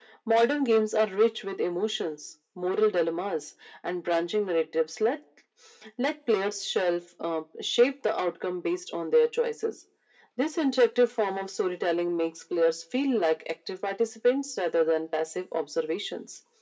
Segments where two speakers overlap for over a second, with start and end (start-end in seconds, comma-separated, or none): none